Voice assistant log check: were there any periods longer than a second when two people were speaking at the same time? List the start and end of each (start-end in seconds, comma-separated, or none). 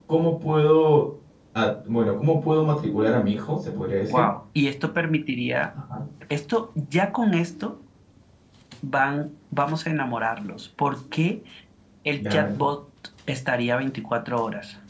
none